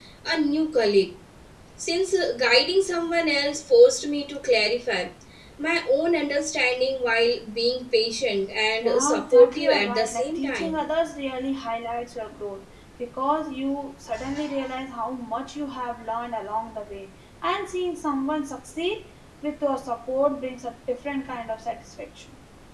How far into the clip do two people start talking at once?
8.8 s

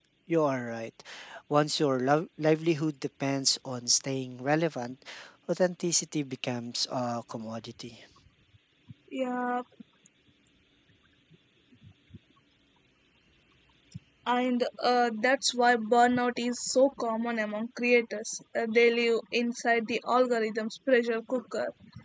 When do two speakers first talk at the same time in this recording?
none

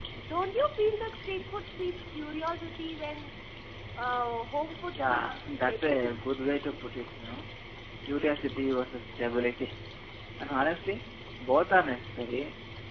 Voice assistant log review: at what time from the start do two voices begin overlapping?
5.0 s

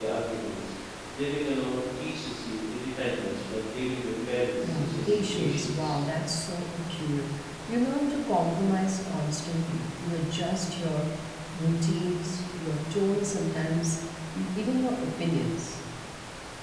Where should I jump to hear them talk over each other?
4.6 s

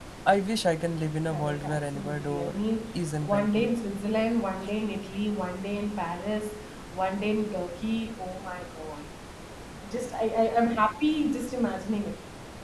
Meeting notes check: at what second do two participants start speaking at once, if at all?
1.3 s

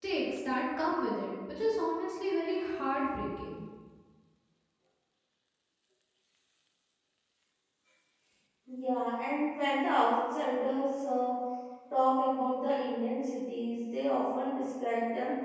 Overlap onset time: none

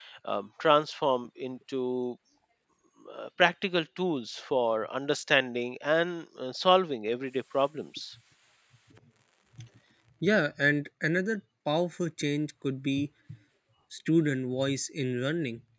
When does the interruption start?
none

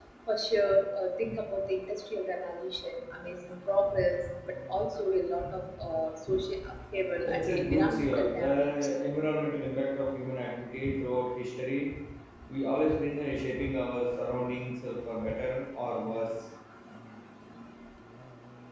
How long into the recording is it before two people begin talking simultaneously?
7.2 s

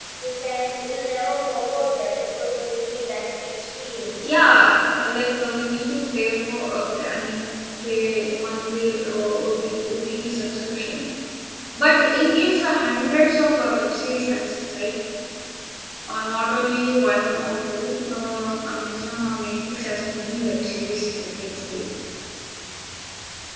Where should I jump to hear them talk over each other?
none

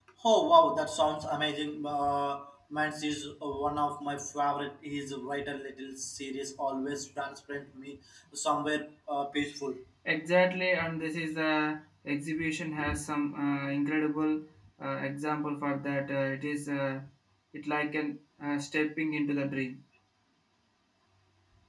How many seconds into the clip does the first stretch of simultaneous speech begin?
none

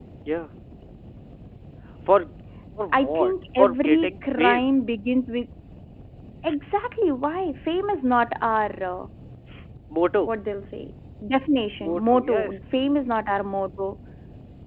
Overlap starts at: 3.0 s

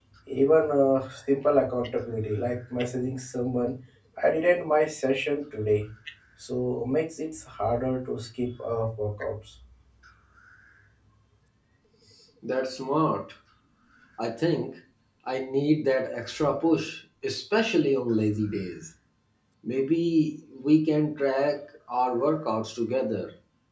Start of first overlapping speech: none

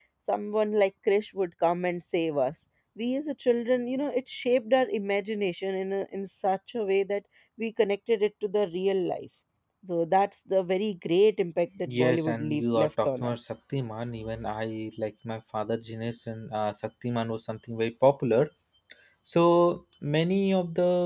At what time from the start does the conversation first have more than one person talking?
11.8 s

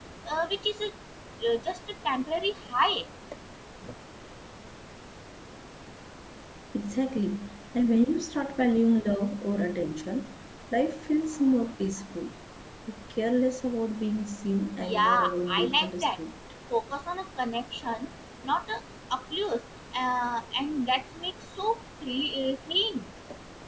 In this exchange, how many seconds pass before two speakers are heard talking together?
14.8 s

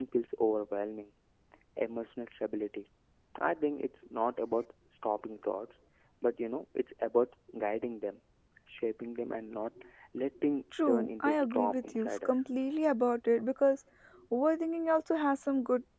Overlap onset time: 10.7 s

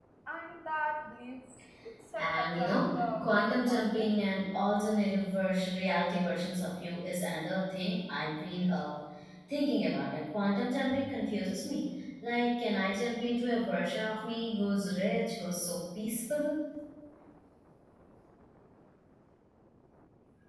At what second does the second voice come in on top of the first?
2.2 s

